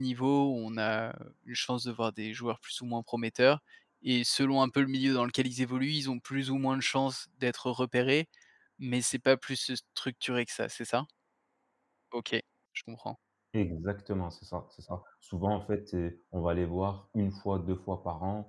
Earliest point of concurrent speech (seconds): none

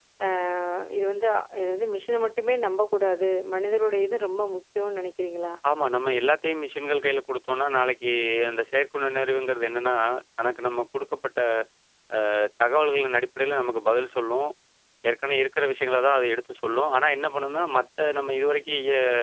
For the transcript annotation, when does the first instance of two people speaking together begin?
none

